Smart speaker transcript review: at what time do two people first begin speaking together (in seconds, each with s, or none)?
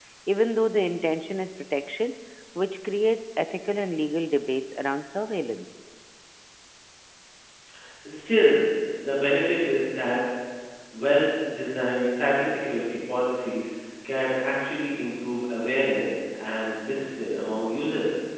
none